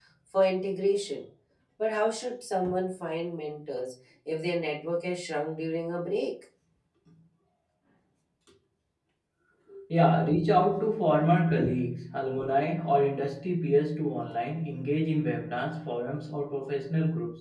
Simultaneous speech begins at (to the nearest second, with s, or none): none